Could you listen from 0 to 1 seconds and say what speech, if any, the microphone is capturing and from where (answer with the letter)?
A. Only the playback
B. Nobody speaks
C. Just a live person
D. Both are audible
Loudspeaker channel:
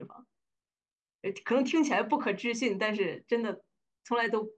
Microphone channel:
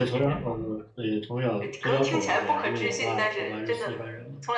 D